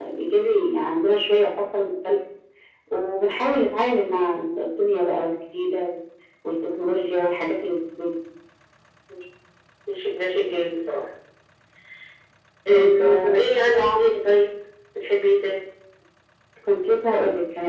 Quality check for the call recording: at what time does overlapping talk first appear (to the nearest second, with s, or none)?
13 s